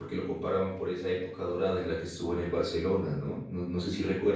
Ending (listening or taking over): listening